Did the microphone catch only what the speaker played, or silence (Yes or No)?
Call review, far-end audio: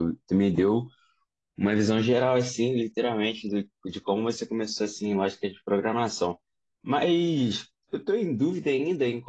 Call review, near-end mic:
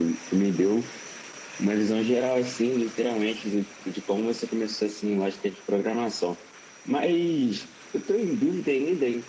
Yes